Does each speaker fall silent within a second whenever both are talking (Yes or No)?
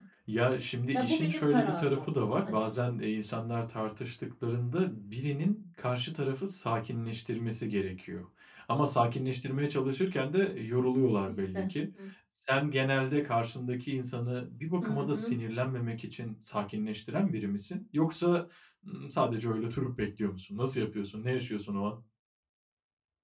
No